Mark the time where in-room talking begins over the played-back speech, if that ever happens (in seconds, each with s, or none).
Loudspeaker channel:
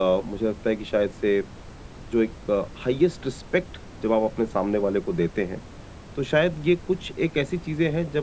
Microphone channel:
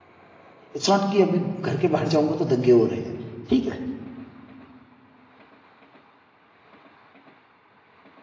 0.7 s